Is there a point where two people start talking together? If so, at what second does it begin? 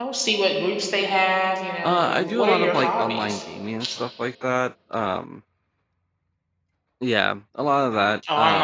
1.8 s

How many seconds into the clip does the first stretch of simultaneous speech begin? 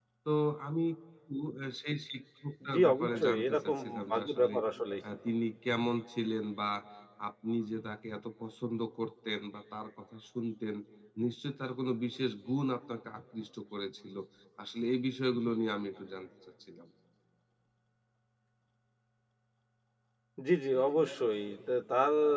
2.6 s

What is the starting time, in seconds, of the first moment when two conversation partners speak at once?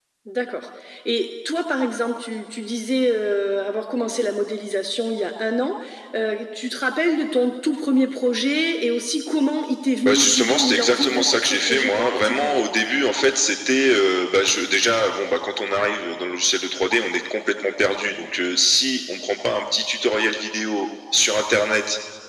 10.0 s

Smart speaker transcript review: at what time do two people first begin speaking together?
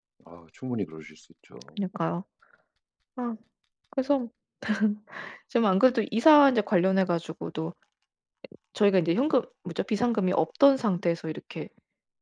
none

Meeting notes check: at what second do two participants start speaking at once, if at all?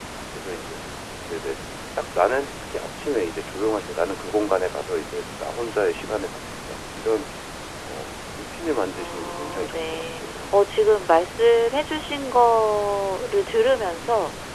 9.0 s

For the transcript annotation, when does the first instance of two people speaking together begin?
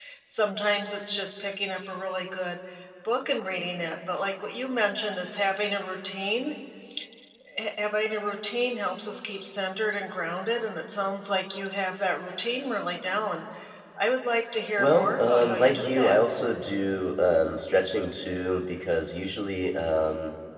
14.8 s

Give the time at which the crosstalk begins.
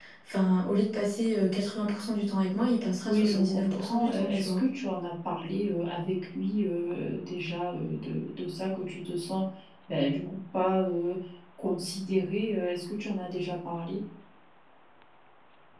3.0 s

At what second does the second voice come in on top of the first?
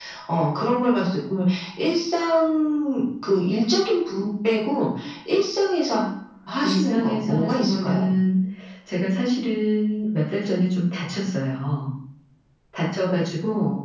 6.6 s

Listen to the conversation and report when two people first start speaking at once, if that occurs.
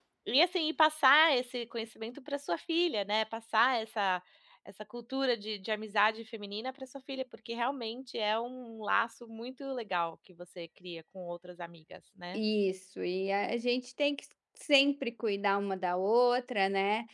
none

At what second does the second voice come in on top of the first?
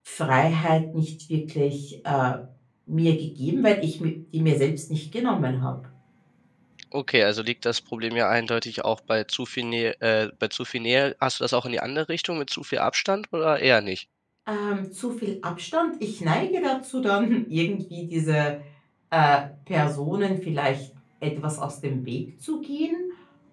none

